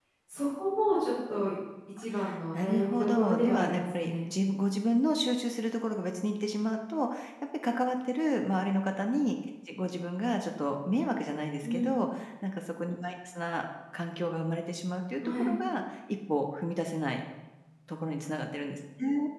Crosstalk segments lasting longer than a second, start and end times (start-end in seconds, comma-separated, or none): 2.5-4.1